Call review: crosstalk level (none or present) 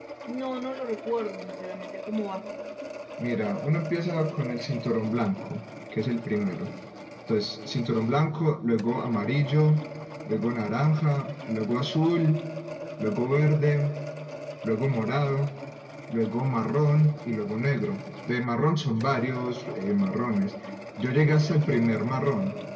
none